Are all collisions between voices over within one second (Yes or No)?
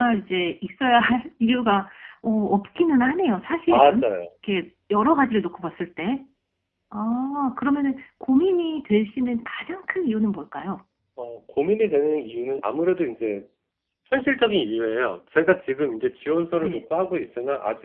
Yes